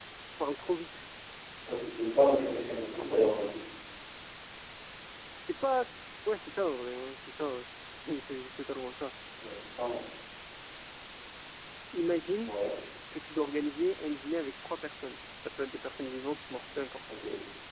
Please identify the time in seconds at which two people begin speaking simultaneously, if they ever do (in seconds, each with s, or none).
2.2 s